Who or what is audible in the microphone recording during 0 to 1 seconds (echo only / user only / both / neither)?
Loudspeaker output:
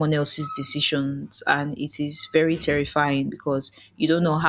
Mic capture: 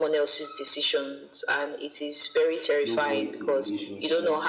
echo only